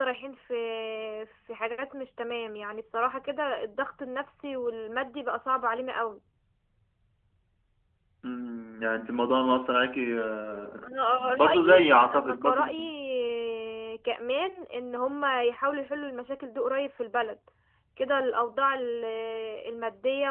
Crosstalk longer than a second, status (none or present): present